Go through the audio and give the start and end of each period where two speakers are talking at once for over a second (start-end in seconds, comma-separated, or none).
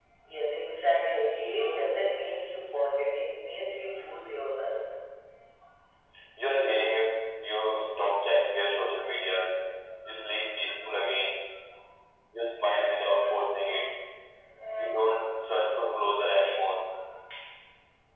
none